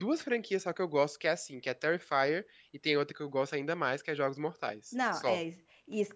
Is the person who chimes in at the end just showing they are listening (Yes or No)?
No